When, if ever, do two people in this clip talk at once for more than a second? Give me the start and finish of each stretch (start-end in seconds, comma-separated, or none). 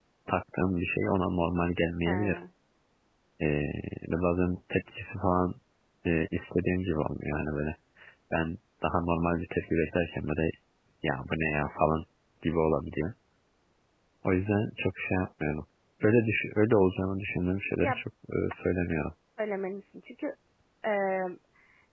none